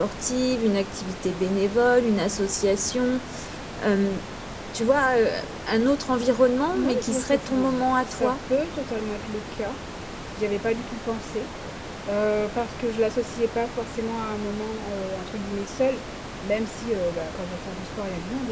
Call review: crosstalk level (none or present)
present